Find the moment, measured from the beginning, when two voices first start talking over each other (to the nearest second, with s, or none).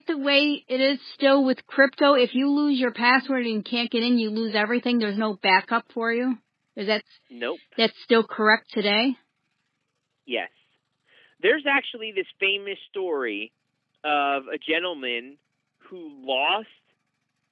none